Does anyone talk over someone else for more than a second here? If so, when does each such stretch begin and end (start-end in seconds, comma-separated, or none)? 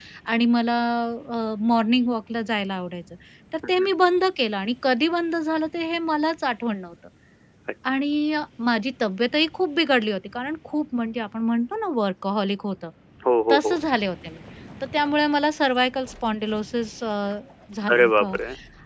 none